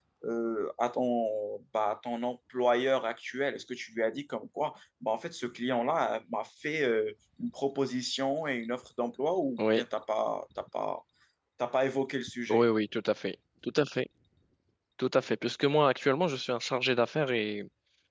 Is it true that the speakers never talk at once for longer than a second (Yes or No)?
Yes